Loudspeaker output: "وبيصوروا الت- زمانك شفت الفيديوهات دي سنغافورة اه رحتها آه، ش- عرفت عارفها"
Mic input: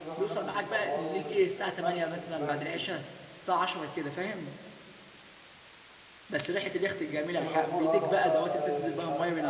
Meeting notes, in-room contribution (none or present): present